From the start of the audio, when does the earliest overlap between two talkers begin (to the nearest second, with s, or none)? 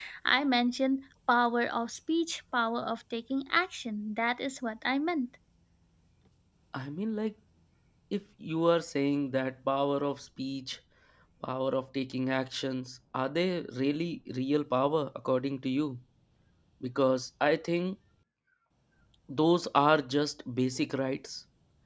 none